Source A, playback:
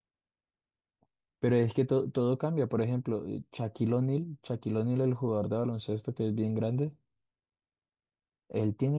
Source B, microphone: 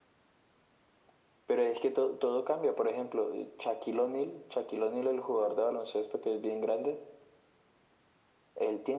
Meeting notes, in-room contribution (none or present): none